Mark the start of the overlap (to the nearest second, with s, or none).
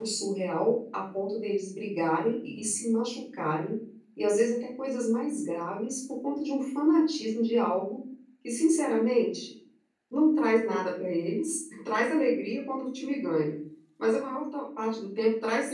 none